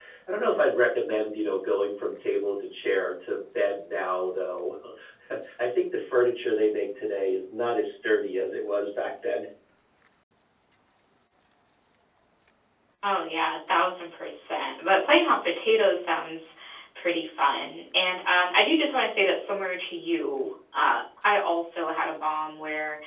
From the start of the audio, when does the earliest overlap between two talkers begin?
none

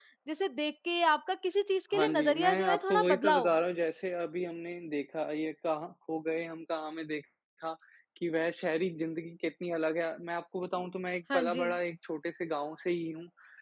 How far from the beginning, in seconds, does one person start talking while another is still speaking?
1.9 s

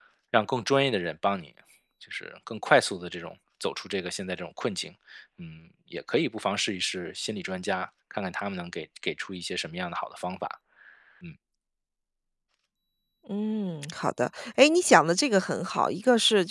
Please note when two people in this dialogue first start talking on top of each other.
none

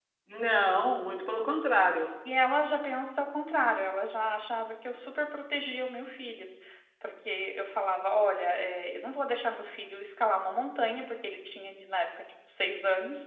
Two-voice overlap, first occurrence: none

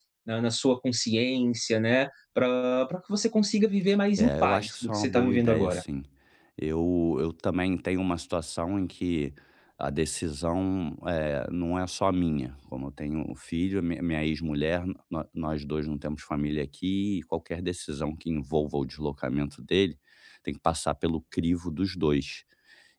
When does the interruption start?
4.2 s

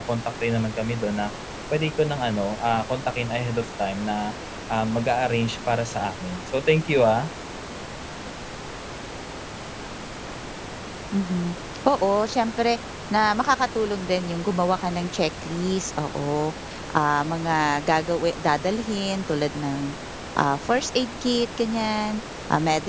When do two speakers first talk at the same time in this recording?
none

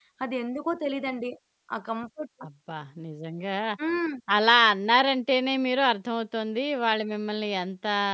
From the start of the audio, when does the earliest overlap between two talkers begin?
none

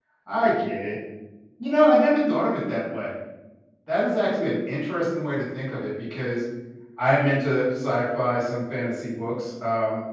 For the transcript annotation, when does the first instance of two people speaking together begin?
none

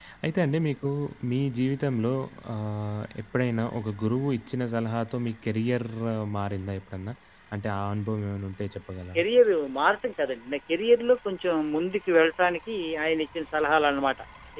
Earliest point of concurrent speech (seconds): none

